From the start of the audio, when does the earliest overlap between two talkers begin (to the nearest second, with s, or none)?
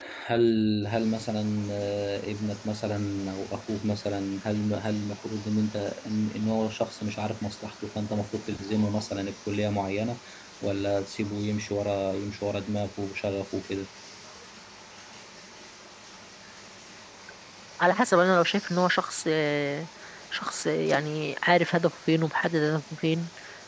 none